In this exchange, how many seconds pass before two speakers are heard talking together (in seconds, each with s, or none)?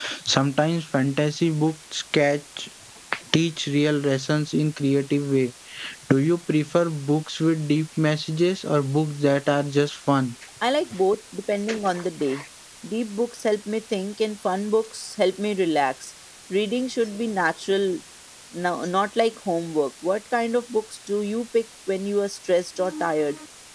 none